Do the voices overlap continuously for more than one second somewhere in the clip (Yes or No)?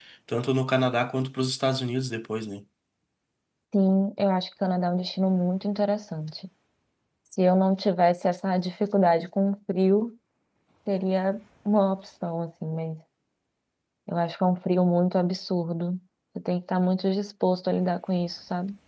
No